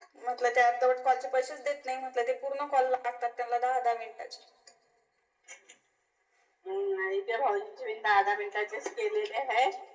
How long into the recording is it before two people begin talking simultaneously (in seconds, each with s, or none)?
none